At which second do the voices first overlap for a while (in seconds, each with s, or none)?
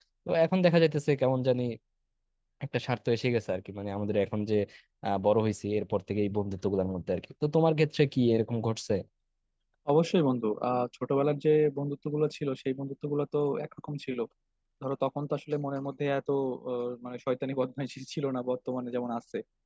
none